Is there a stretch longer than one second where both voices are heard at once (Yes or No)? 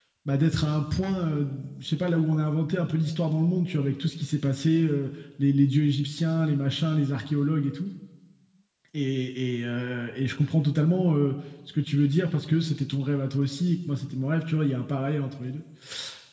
No